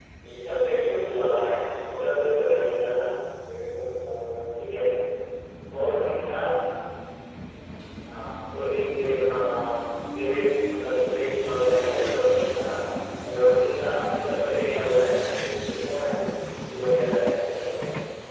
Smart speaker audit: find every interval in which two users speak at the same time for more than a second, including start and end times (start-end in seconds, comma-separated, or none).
none